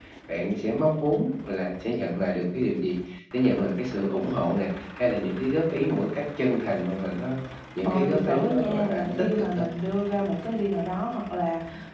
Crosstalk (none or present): present